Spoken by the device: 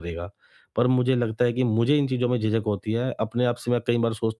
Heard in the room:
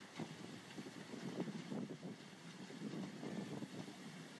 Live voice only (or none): none